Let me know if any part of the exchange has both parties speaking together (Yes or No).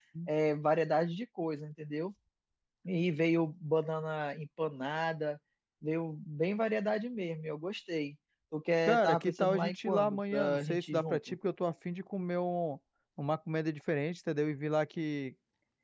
Yes